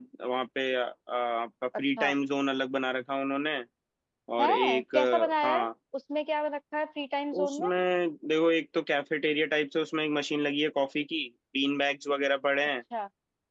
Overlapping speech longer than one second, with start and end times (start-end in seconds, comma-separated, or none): 4.4-5.7